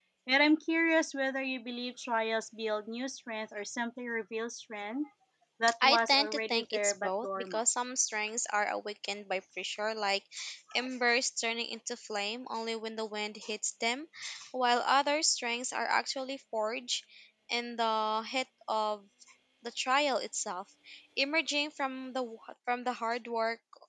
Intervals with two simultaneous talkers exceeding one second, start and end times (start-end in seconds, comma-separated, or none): 5.8-7.6